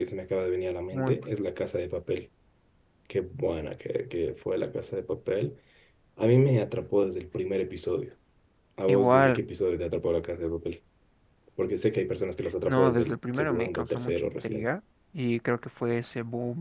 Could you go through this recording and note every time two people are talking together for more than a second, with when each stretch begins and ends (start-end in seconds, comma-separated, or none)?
12.7-14.7